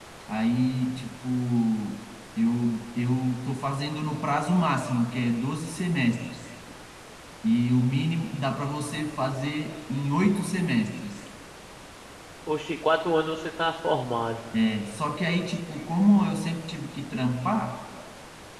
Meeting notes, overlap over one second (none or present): none